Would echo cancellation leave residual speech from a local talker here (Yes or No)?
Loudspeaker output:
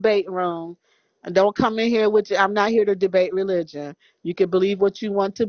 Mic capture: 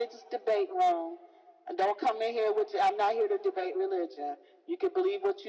No